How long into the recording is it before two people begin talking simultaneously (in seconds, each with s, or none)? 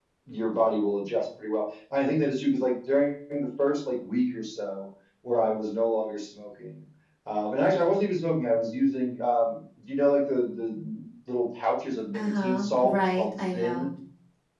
12.1 s